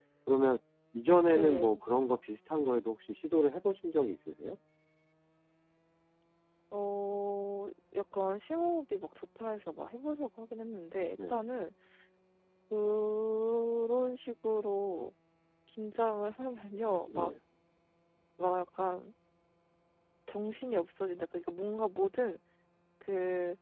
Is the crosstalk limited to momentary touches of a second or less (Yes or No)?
Yes